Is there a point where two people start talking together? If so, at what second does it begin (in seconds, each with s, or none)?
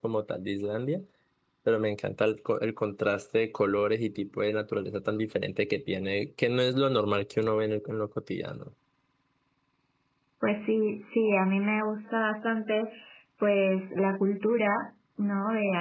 none